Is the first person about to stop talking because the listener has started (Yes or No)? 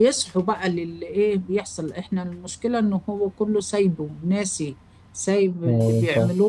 No